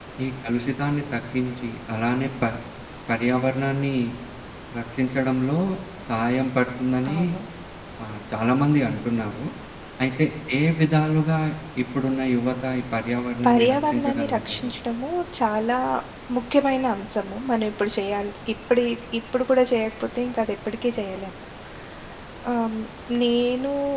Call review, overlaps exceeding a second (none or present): present